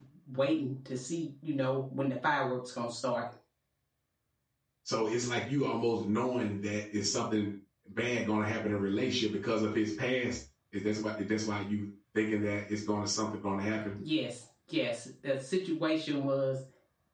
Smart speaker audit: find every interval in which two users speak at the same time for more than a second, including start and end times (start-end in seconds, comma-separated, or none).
none